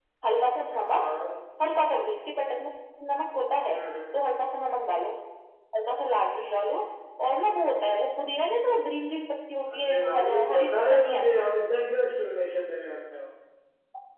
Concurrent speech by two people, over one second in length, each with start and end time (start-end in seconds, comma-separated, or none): 9.7-11.2